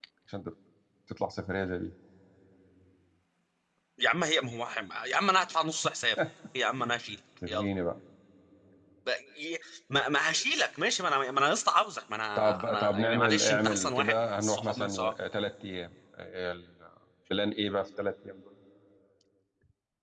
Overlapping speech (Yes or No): Yes